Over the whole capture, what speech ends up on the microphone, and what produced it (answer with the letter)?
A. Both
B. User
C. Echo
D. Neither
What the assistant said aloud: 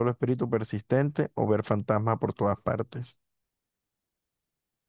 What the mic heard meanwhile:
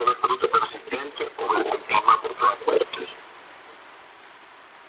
C